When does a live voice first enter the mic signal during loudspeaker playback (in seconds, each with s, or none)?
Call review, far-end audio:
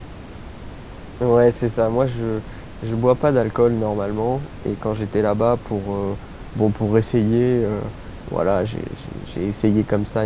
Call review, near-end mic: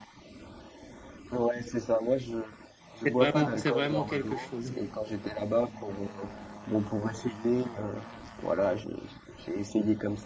3.0 s